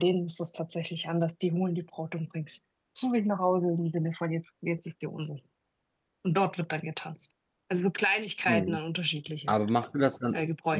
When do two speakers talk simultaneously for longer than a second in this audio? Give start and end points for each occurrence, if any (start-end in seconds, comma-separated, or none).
none